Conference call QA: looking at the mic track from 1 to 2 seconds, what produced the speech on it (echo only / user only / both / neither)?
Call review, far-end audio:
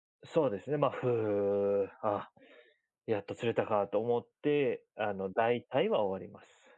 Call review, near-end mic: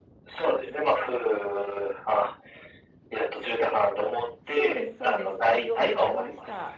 echo only